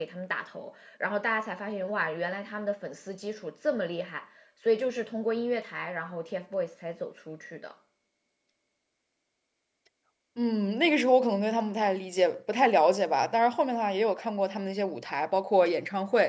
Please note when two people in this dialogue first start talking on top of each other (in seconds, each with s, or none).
none